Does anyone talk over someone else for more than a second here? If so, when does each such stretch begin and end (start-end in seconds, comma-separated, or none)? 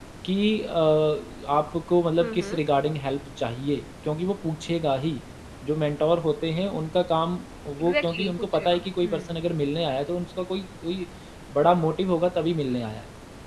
7.8-9.3